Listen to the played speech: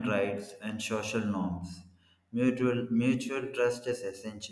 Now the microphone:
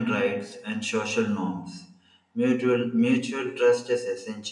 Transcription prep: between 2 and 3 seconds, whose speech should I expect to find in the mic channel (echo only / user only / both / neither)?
echo only